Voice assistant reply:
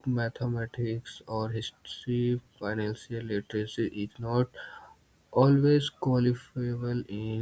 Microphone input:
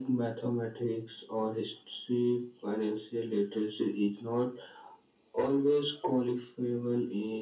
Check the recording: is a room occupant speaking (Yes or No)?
No